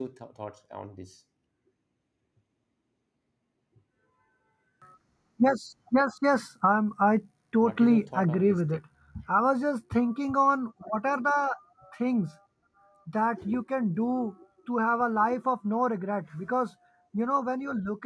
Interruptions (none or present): present